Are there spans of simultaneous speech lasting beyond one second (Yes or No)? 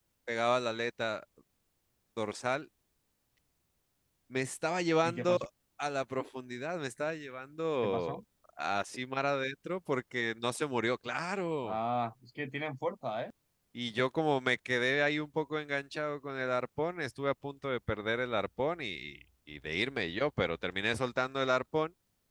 No